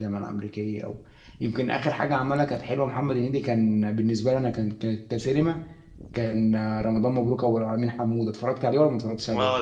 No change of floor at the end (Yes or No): No